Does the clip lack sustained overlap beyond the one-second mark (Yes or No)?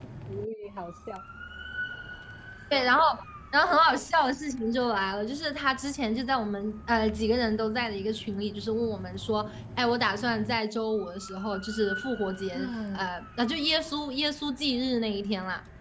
Yes